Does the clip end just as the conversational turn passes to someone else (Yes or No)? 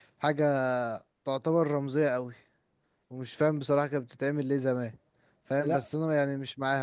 No